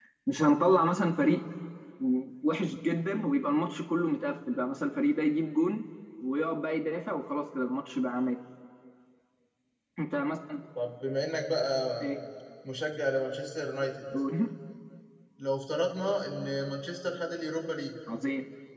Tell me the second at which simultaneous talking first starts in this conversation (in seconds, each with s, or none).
none